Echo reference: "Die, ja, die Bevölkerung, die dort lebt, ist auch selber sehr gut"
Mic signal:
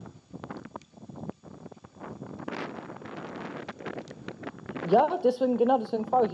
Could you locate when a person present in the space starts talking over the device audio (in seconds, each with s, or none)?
4.8 s